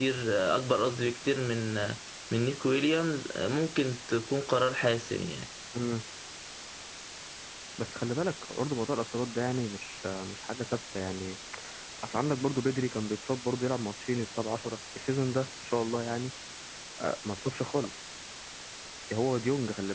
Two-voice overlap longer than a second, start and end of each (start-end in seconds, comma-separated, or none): none